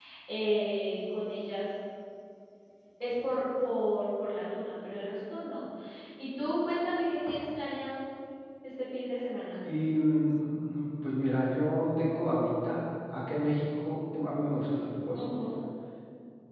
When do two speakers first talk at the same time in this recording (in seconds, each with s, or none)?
none